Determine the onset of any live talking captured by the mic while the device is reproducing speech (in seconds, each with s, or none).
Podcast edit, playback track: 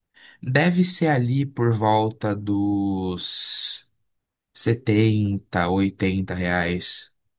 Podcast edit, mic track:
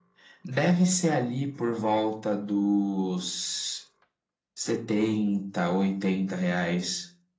none